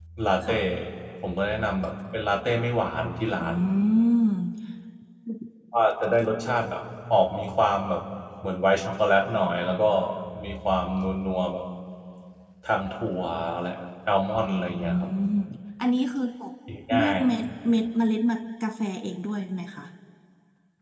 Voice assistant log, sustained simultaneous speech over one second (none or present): none